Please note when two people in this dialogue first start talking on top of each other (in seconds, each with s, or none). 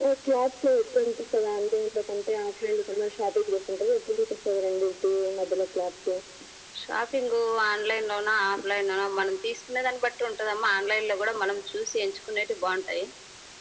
none